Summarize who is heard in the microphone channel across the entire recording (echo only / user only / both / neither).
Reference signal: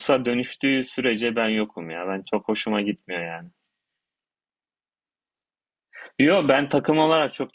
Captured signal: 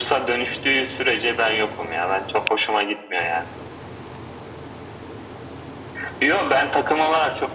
echo only